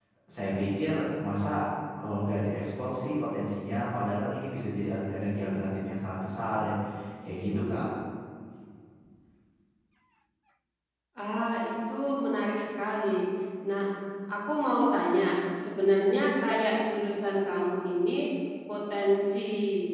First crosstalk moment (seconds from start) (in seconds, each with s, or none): none